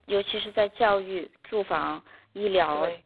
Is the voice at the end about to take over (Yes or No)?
No